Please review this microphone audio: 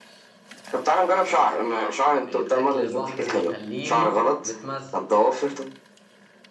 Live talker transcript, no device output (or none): فاضل لنا تخمينة واحدة طب طيب أكل البحر بيخليني متمزج